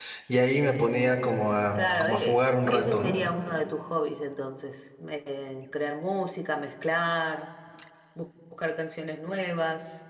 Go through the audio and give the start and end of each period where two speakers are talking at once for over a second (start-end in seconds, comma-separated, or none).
1.8-3.2